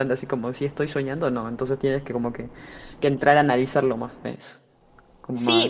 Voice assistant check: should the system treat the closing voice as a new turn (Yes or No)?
Yes